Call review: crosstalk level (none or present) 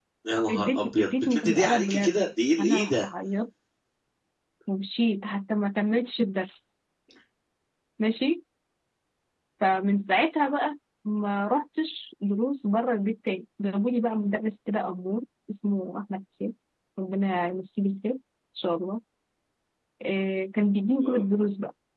present